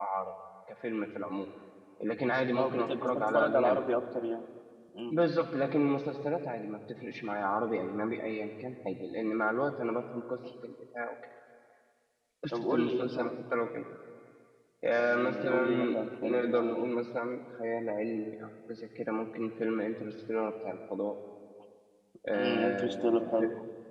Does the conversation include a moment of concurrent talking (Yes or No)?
Yes